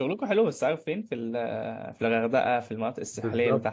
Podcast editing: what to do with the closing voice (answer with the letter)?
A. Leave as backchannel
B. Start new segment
B